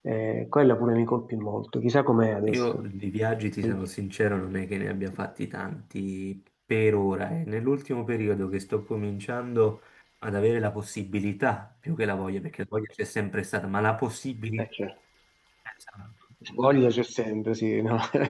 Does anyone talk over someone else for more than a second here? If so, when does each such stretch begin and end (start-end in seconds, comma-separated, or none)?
none